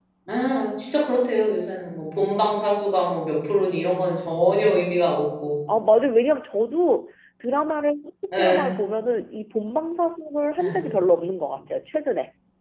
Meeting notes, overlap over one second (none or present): none